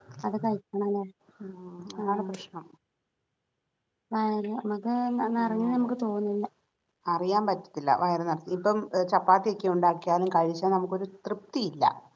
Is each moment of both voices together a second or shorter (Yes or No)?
Yes